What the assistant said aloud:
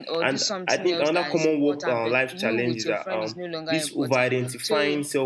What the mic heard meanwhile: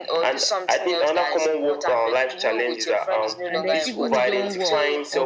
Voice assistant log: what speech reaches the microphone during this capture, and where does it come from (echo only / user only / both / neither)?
both